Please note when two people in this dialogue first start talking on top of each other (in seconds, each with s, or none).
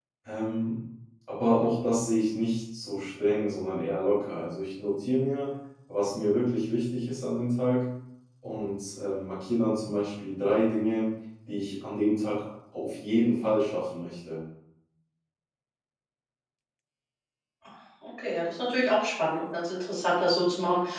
none